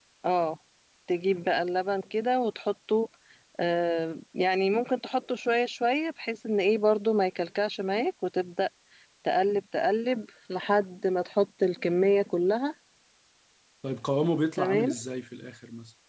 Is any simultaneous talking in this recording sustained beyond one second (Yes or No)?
No